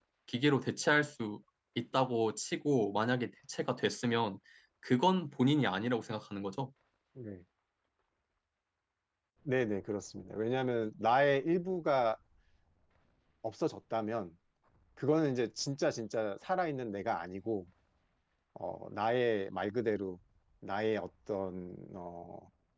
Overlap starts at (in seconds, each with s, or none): none